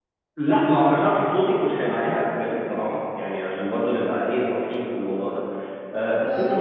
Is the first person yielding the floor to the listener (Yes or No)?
No